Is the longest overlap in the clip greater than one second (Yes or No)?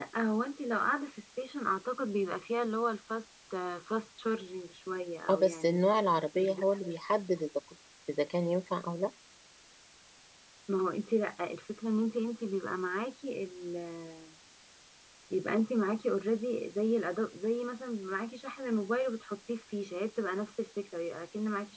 No